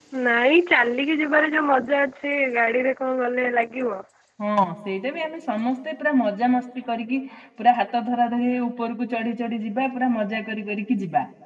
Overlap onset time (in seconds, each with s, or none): none